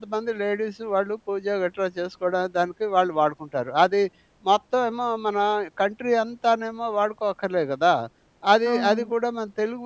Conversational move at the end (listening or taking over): listening